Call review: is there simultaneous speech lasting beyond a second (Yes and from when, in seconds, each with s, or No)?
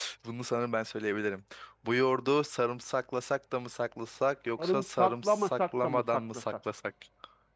Yes, from 4.6 s